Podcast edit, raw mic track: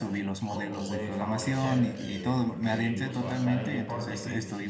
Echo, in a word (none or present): present